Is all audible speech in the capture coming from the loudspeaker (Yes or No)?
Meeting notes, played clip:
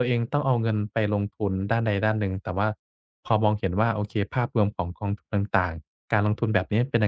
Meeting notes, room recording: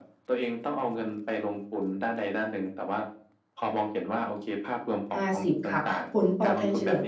No